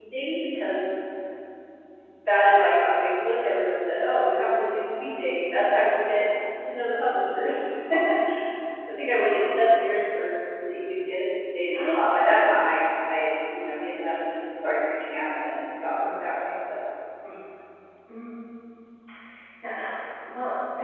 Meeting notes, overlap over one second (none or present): none